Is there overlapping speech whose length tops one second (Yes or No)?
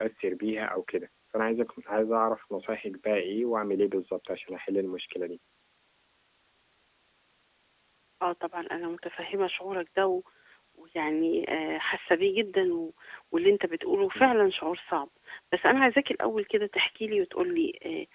No